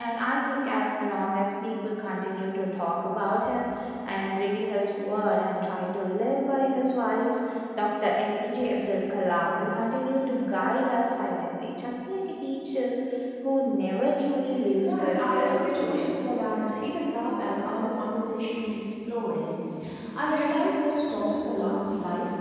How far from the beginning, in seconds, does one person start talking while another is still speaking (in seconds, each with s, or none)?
14.8 s